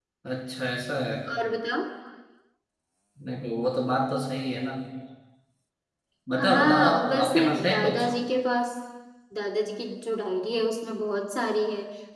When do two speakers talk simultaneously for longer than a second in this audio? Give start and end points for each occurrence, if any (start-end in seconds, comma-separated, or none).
6.4-8.0